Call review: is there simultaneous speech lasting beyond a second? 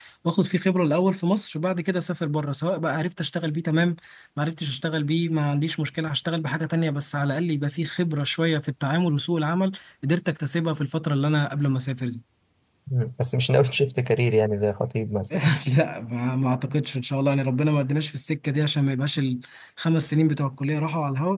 No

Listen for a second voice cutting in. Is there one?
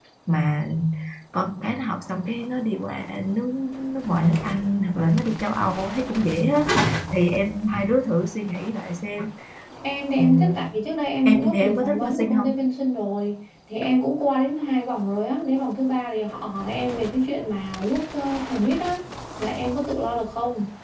Yes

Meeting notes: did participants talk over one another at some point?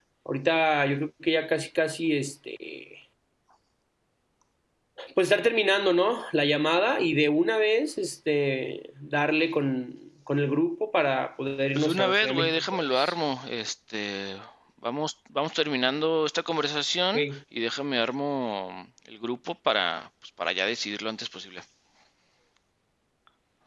Yes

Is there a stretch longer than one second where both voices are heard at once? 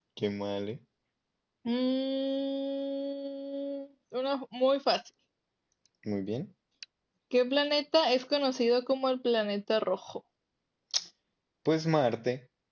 No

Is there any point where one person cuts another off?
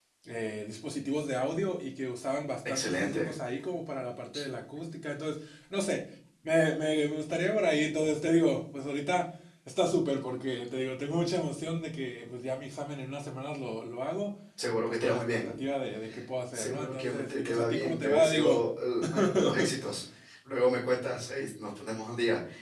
Yes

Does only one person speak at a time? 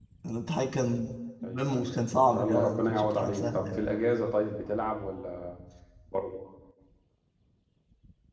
No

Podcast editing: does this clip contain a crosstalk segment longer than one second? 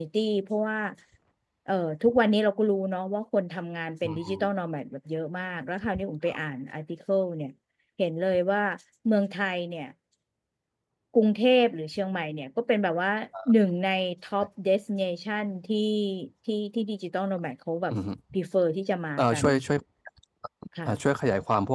No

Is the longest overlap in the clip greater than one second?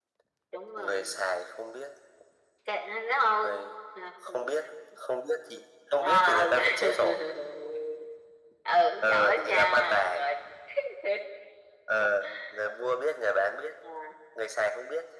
Yes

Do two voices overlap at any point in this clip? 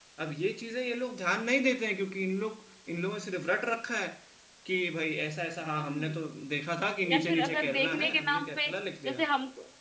Yes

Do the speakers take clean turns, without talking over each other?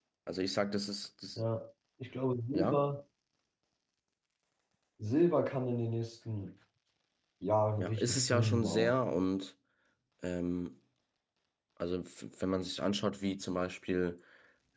No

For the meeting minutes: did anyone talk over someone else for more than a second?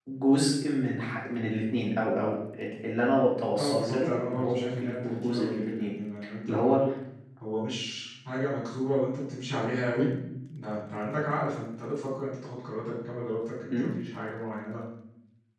Yes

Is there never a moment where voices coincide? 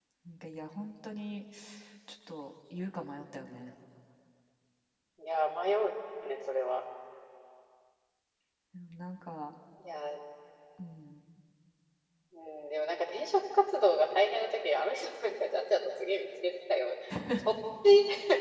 Yes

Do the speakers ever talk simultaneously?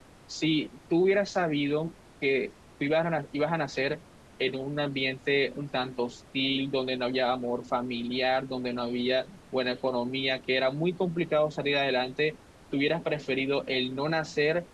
No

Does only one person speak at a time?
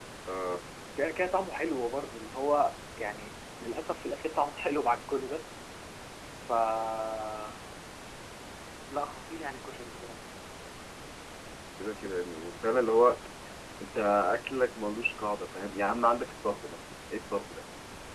Yes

